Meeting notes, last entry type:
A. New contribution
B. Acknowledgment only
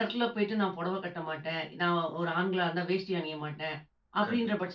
B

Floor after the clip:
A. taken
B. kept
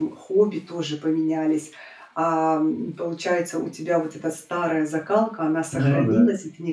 B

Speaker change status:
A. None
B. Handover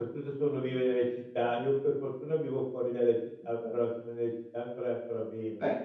B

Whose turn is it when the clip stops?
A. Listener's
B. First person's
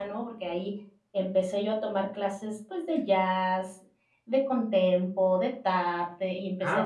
A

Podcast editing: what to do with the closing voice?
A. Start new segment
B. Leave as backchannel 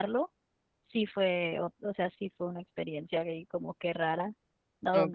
B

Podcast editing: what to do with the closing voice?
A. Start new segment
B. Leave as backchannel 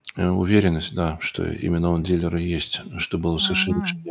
A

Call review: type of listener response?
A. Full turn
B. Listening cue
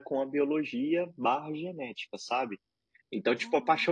B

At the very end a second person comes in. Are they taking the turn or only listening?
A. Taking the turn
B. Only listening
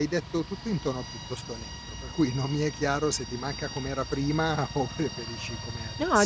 A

